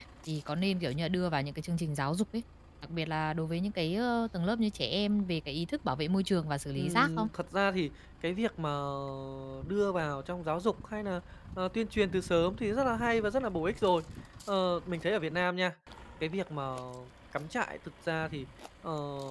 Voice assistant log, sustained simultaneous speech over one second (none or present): none